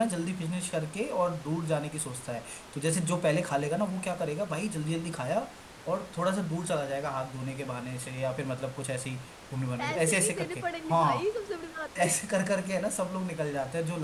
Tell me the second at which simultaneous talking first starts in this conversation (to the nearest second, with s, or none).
10 s